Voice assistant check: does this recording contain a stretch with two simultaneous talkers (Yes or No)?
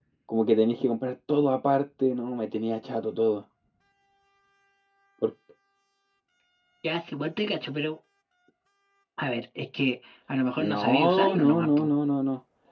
Yes